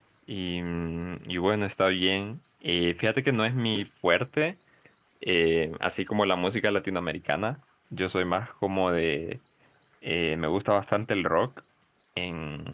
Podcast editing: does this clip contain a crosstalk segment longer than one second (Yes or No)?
No